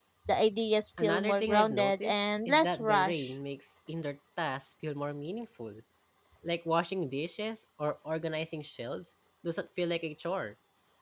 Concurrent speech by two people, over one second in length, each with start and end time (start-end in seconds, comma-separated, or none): 1.0-3.3